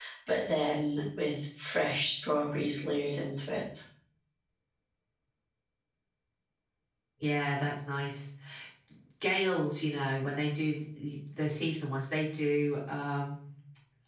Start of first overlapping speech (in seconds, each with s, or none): none